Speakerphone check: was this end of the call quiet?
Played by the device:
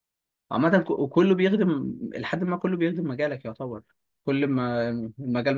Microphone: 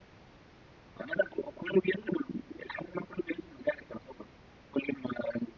Yes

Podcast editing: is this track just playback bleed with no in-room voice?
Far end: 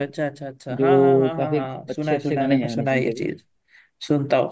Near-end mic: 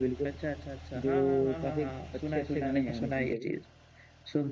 Yes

